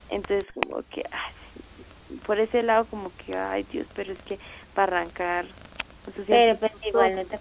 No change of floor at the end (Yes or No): No